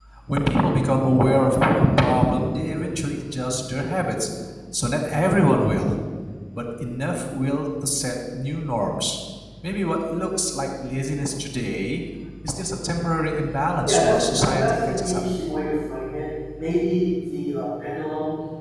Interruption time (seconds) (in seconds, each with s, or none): 13.9 s